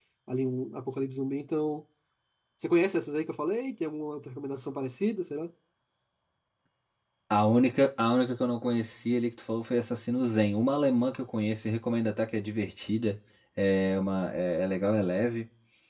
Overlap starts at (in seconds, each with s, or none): none